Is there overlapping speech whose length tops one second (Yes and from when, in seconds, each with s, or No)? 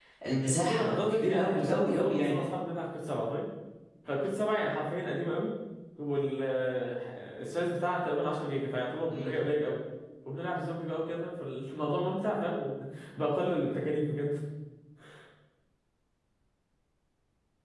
Yes, from 0.6 s